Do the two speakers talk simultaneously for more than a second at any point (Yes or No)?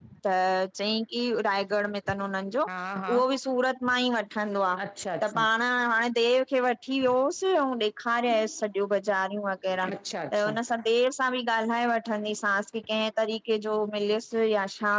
No